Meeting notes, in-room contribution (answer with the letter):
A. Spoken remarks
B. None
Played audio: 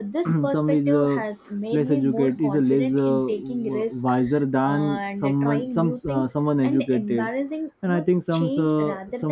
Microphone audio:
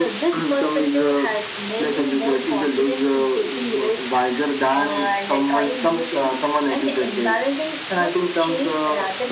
B